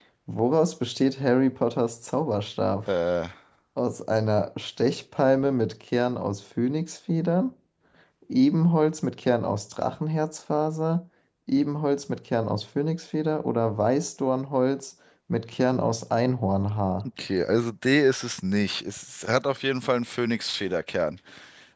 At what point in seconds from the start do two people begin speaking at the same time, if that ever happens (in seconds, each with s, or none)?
none